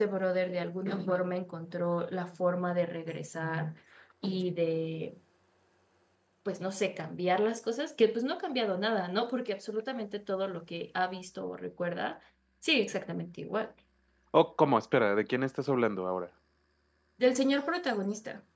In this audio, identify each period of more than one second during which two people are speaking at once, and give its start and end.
none

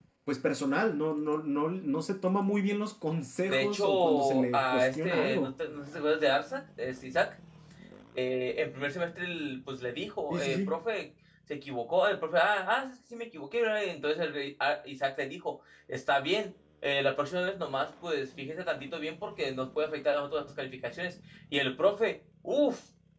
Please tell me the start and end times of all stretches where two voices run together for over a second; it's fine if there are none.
3.5-5.5

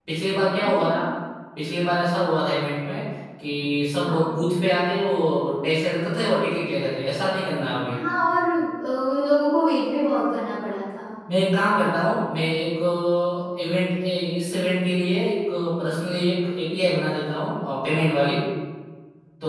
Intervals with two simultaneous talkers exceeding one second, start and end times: none

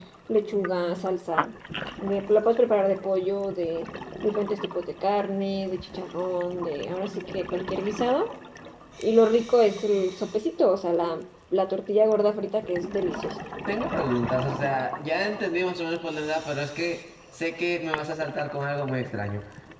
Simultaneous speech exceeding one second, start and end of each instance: none

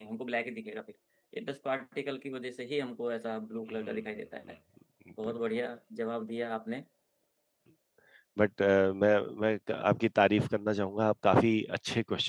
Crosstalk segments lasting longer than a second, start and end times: none

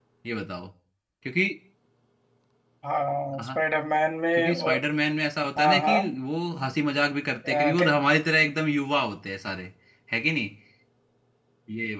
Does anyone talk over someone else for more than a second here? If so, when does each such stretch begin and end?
none

